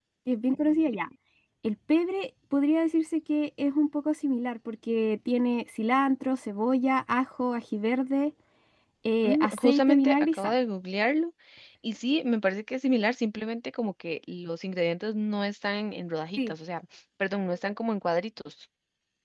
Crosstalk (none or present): present